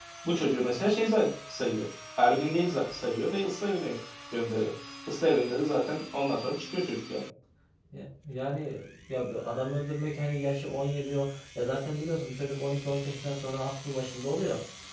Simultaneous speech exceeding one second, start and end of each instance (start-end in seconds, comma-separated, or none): none